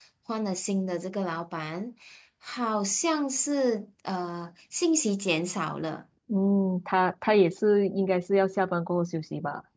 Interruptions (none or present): none